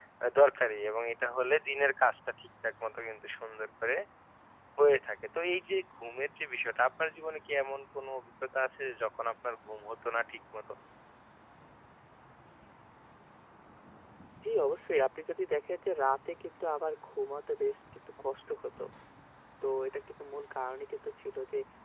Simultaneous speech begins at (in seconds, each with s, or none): none